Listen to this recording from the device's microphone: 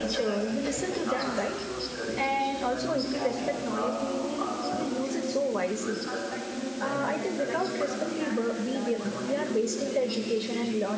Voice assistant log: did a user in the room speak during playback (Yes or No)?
Yes